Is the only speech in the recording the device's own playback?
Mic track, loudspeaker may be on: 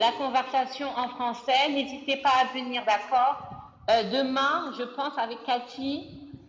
Yes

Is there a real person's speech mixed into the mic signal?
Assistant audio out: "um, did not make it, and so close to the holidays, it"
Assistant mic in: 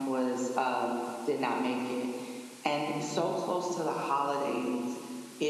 No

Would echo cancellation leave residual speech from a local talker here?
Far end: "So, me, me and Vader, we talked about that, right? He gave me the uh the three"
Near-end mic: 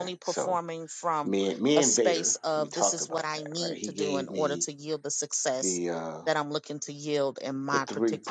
Yes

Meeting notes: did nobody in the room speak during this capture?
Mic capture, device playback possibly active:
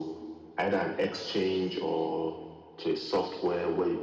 Yes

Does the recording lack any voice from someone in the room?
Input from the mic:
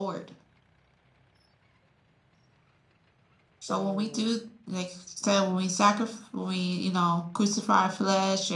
No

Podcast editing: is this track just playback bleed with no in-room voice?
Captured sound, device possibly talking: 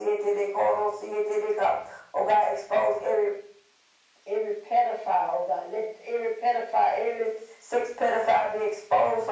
Yes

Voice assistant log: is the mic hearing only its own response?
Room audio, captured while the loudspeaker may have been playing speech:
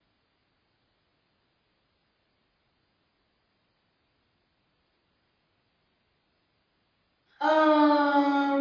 No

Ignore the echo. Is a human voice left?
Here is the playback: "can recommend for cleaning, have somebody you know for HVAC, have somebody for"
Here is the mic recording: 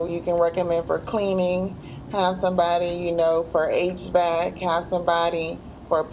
No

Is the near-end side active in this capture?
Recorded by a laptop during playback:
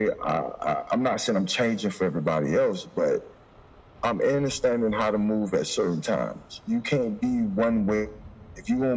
No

